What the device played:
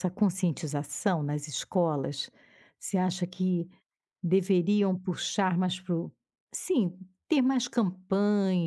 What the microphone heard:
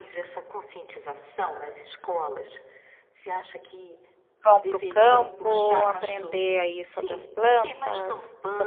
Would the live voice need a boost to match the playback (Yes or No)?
No